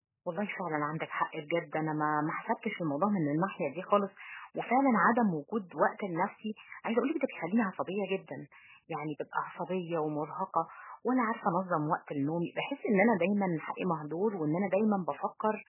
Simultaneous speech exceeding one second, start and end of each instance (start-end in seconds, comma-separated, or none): none